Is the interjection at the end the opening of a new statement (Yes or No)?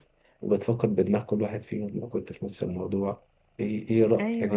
No